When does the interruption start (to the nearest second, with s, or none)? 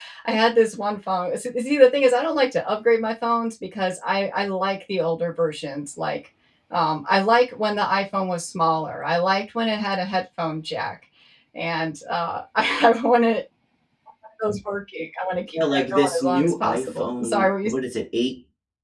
16 s